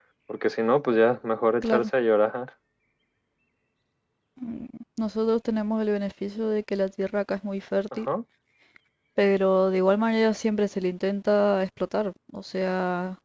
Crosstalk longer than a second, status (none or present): none